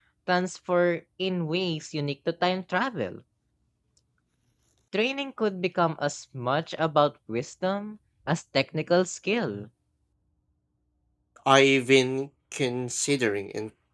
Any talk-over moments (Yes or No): No